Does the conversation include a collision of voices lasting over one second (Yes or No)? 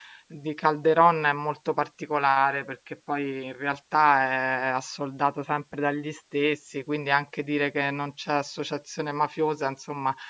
No